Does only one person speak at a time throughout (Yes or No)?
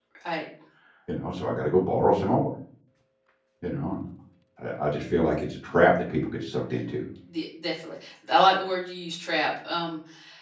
Yes